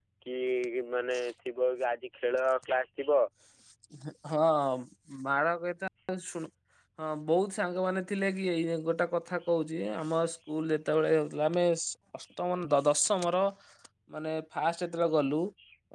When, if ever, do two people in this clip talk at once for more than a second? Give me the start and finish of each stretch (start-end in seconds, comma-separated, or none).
none